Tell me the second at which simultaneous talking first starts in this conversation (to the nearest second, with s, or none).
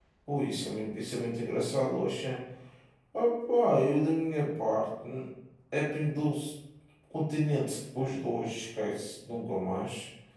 none